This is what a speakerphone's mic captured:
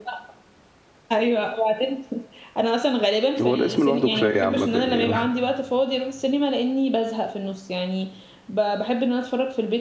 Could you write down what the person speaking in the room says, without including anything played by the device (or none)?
هو الاسم لوحده كفاية عامة يعني